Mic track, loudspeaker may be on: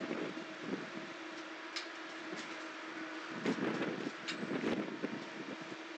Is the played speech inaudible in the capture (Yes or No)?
Yes